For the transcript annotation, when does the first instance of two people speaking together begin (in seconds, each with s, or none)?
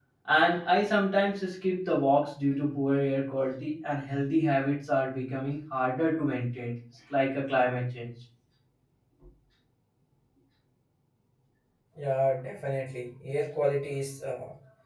none